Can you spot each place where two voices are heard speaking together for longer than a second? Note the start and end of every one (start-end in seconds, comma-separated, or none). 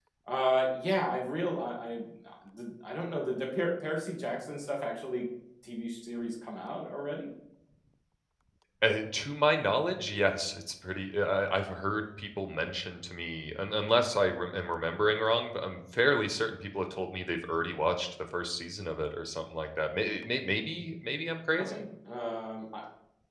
none